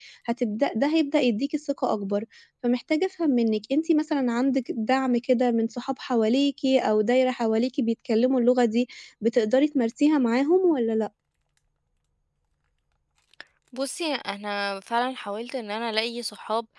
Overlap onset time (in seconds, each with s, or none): none